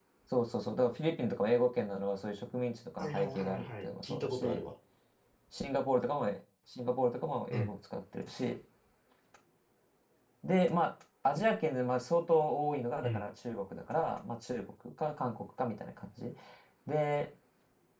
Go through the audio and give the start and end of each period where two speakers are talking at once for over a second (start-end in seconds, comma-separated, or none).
3.0-4.6